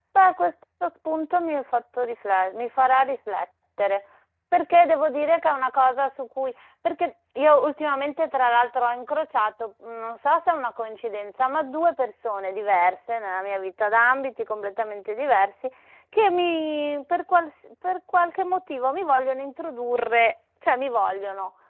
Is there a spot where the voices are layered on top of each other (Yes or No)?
No